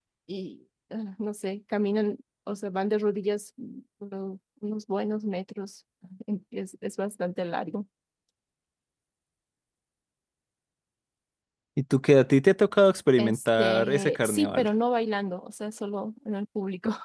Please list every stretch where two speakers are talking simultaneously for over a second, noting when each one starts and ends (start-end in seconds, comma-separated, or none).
13.2-14.7